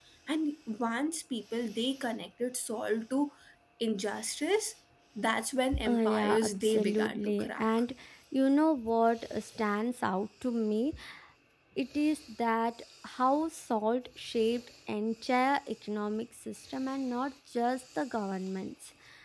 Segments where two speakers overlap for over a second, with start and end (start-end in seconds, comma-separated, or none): 5.8-7.7